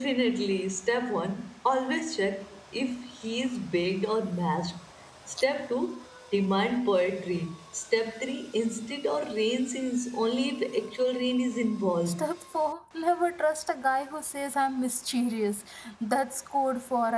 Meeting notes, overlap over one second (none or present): none